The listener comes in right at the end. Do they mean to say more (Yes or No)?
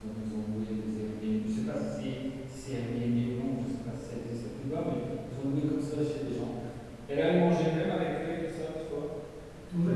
Yes